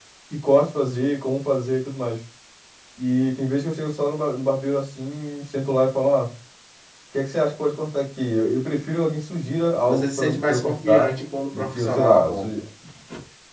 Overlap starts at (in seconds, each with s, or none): 9.9 s